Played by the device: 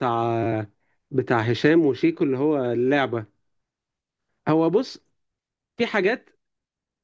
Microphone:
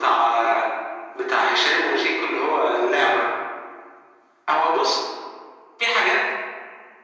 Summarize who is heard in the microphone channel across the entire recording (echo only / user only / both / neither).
echo only